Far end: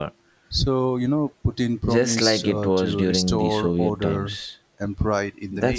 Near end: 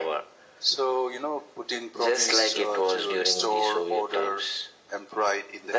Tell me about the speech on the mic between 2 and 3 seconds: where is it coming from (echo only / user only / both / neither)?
echo only